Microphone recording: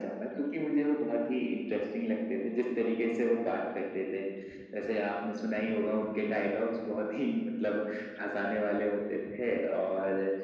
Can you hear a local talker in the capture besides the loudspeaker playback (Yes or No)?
No